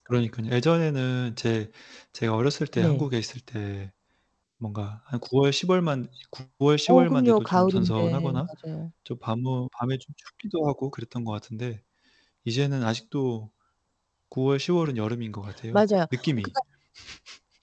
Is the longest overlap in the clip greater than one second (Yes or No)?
Yes